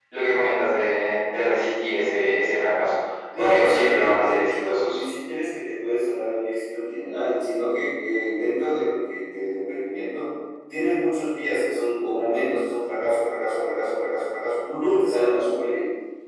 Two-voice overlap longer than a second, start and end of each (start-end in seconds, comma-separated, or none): 3.4-5.0